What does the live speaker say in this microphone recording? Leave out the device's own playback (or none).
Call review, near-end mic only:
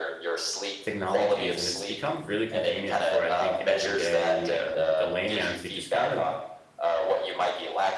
technologies and it's become really convenient for, I think, everyday uh, the layman to just kind of